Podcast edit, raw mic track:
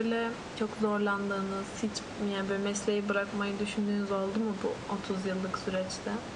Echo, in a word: present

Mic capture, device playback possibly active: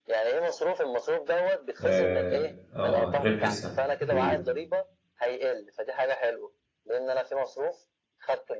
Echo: present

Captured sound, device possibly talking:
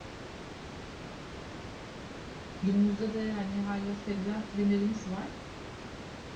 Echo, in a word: none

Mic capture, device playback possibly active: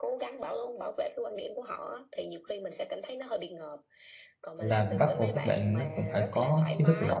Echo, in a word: present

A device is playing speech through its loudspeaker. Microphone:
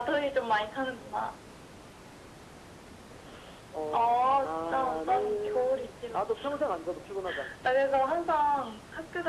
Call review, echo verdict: present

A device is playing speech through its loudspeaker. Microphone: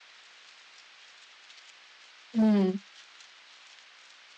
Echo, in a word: none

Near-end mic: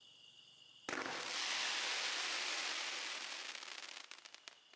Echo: none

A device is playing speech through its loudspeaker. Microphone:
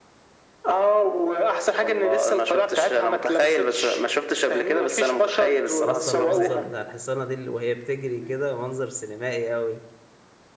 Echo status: present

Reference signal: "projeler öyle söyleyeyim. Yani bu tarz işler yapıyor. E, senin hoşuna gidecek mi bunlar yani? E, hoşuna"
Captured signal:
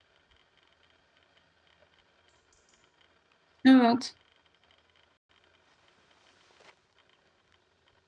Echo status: none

